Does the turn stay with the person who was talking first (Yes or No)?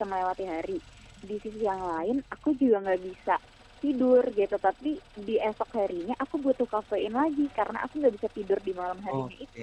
No